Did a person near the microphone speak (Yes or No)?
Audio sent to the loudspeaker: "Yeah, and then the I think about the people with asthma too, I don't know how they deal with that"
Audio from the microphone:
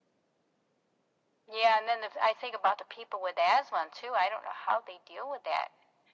No